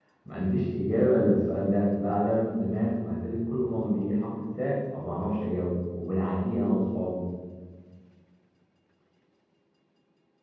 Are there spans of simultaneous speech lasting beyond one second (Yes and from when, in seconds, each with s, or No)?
No